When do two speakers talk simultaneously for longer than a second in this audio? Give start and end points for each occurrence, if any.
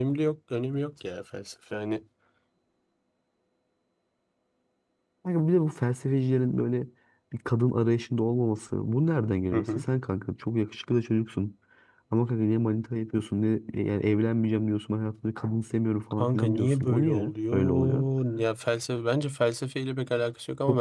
16.1-18.0

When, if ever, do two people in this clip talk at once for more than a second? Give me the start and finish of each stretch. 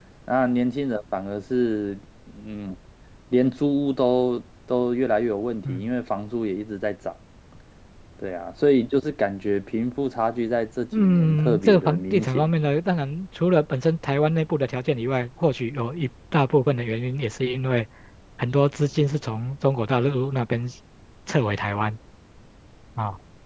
11.0-12.5

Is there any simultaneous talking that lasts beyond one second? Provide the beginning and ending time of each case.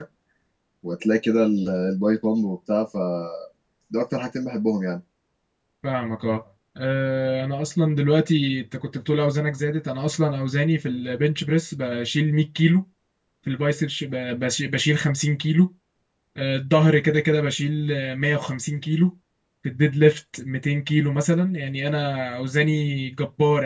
none

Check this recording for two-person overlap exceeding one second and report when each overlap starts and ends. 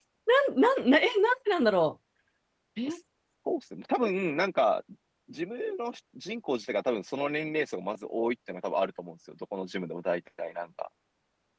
none

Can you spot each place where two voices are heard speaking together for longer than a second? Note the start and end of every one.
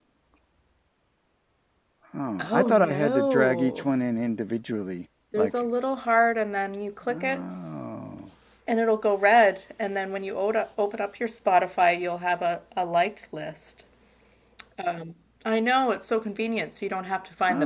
2.4-3.9

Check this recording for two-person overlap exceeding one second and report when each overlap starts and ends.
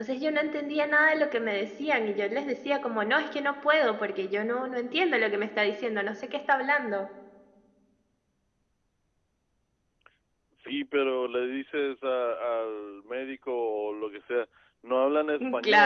none

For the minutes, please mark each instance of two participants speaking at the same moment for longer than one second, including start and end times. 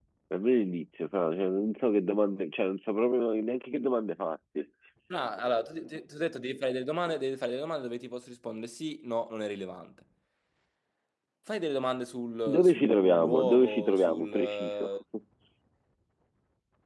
12.5-14.9

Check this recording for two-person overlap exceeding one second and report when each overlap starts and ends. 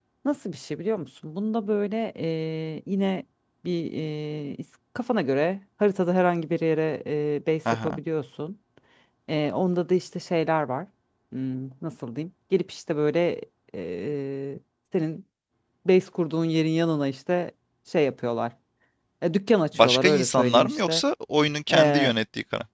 19.7-21.0

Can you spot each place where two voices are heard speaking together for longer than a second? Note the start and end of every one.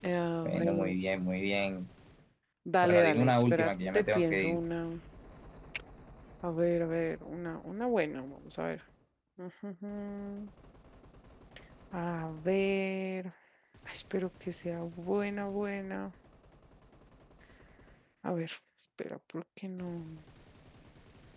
2.8-4.6

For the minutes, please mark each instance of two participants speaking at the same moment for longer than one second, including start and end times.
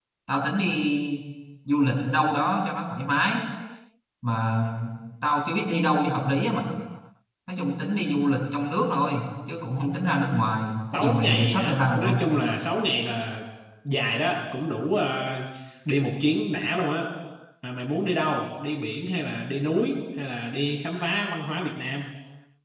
10.9-12.2

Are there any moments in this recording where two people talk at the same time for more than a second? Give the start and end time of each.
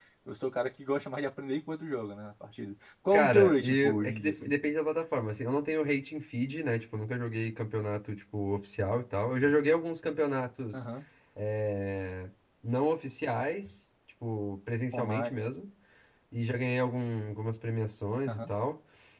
3.1-4.5

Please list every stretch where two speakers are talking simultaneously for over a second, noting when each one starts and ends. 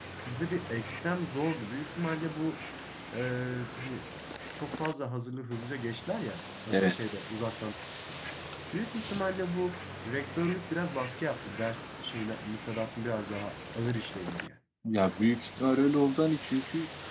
none

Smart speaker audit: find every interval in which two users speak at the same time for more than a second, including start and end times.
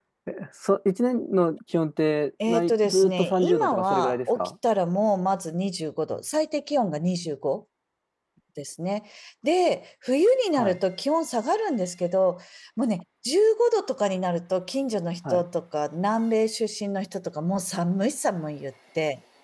2.5-4.5

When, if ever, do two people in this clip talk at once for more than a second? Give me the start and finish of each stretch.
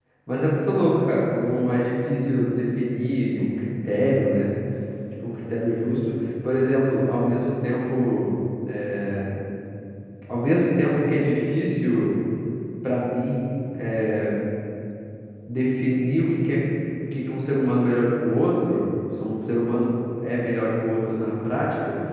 none

